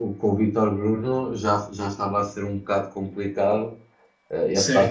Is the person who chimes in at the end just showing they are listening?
Yes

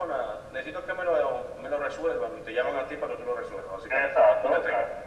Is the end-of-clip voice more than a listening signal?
Yes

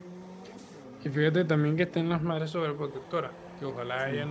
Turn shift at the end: No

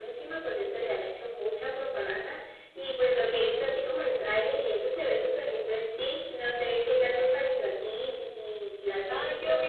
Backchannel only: No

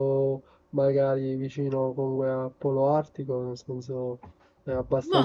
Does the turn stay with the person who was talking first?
No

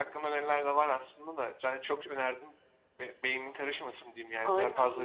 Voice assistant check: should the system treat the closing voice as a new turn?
Yes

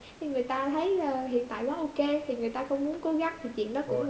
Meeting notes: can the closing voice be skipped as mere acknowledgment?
Yes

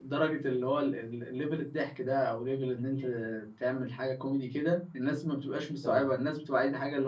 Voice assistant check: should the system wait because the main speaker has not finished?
Yes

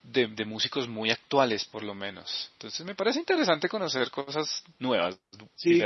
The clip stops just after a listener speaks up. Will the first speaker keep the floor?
No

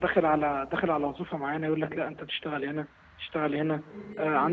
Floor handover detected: No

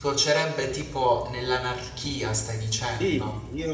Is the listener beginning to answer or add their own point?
Yes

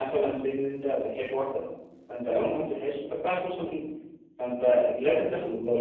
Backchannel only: Yes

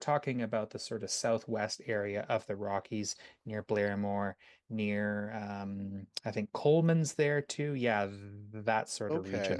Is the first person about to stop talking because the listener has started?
Yes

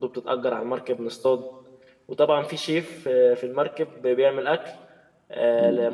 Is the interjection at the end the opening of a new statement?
No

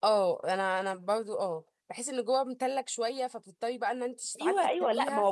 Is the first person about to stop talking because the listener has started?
Yes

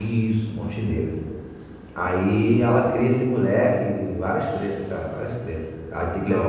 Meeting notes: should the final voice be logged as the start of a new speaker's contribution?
No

